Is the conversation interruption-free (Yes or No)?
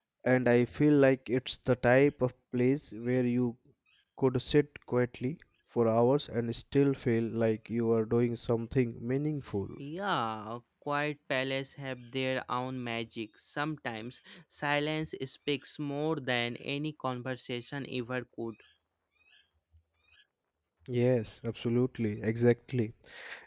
Yes